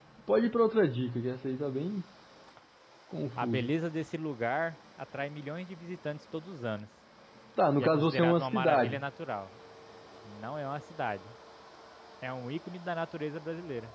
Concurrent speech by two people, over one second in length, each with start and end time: 7.8-9.0

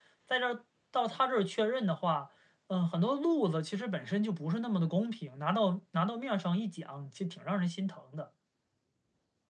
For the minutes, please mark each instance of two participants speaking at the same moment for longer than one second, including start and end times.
none

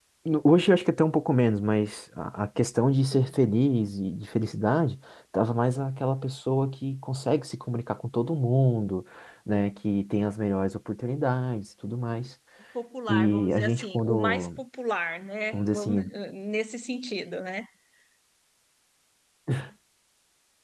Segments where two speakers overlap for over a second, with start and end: 13.1-14.5

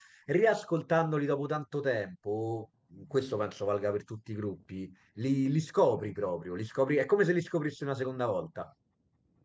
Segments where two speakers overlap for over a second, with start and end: none

